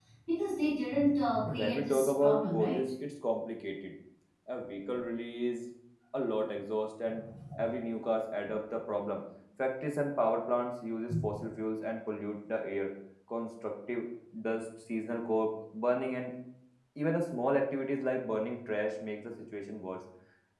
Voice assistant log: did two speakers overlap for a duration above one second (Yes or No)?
Yes